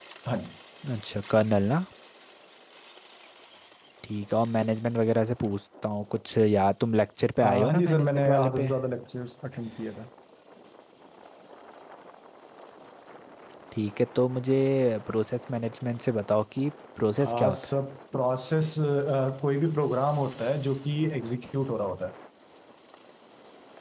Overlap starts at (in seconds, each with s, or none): 7.4 s